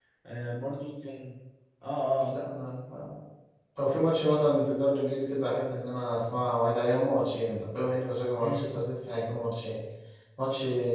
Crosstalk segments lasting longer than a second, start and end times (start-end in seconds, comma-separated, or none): none